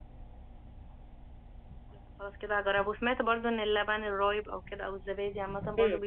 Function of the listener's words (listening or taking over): taking over